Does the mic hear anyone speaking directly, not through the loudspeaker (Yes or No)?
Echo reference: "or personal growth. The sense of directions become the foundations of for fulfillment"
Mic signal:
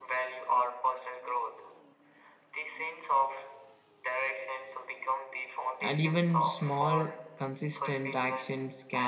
Yes